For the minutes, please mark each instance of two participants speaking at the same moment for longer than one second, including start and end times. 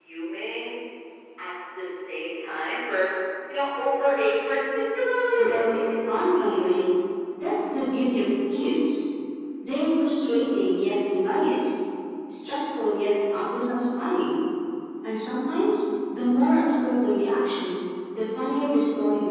5.3-6.7

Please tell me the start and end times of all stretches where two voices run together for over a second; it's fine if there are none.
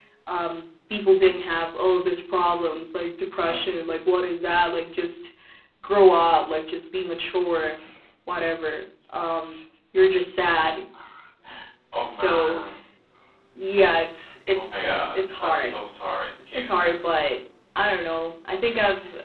14.6-15.8

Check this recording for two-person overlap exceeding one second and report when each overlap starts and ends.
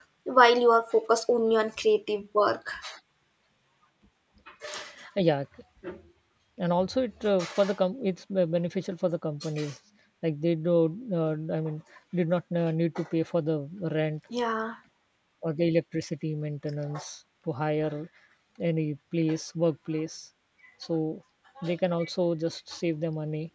none

